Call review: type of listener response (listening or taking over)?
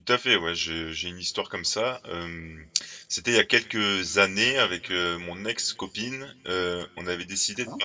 listening